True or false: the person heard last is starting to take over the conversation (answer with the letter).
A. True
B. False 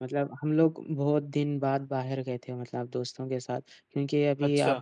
B